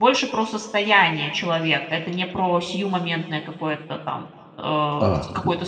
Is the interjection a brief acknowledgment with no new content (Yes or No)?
No